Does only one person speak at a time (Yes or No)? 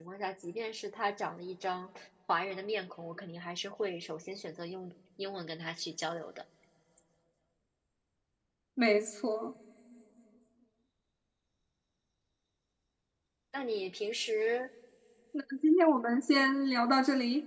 Yes